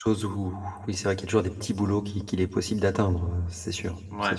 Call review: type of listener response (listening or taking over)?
taking over